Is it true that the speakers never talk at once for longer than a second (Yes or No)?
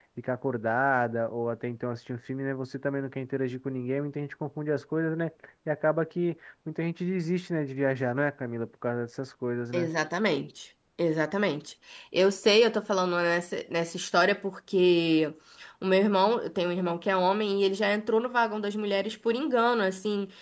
Yes